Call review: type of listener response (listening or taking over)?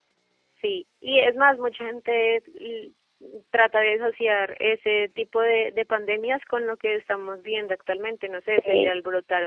listening